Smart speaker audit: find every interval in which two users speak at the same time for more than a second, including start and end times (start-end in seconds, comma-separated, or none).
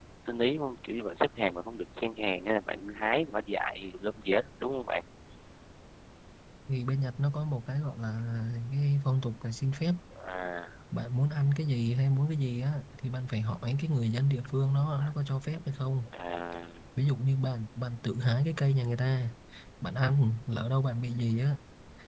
none